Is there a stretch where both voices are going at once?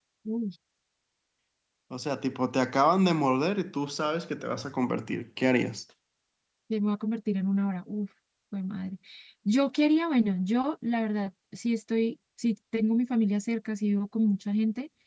No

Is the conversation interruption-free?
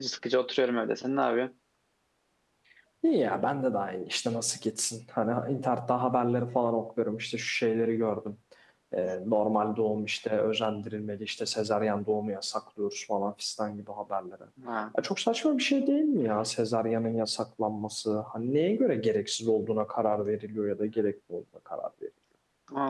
Yes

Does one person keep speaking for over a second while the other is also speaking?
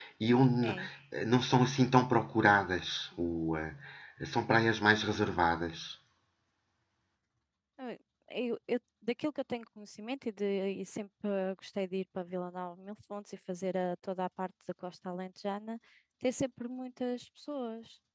No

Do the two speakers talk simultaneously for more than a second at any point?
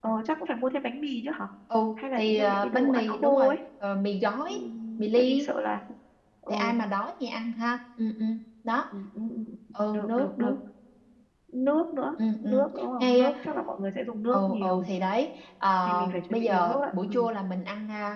Yes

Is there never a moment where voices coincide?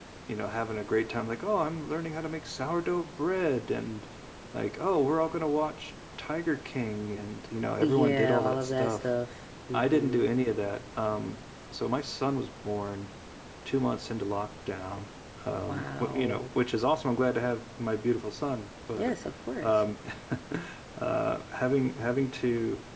No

